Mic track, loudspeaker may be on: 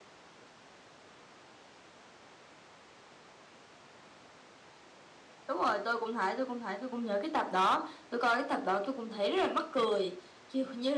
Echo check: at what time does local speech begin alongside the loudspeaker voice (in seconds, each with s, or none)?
none